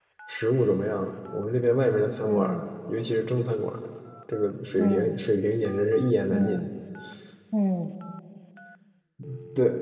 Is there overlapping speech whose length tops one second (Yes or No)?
No